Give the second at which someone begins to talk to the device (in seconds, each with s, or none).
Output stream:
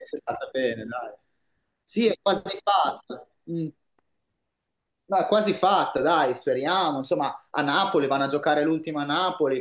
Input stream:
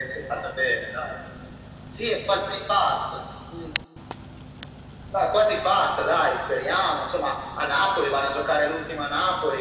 none